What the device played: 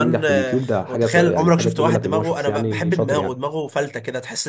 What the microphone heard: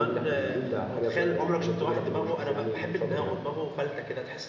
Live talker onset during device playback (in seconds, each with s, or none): none